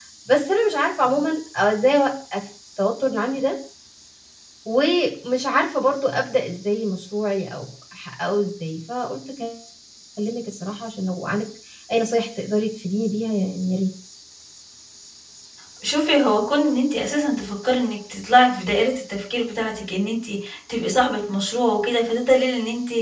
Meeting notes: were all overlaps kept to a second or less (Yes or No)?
Yes